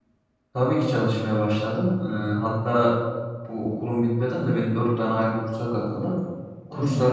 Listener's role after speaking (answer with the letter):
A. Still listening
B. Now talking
A